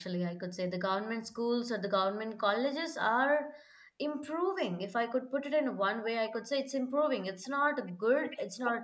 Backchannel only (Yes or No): Yes